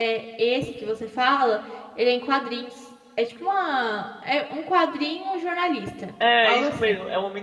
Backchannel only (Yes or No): No